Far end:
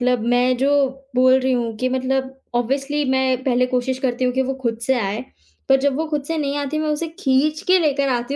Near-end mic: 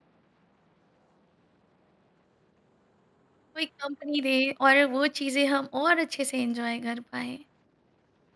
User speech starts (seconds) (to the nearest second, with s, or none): 4 s